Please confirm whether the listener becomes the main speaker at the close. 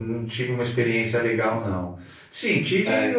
No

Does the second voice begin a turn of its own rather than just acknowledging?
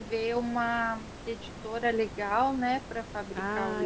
Yes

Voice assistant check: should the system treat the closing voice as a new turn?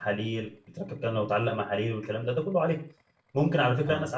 No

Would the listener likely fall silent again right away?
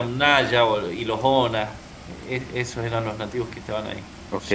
No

